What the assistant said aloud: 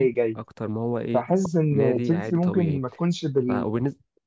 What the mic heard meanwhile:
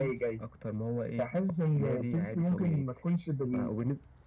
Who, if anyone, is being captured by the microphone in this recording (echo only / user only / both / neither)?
echo only